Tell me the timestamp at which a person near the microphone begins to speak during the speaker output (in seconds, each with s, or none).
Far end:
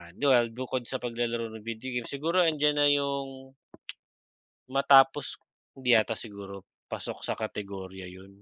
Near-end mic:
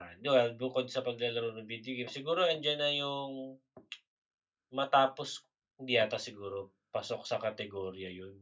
none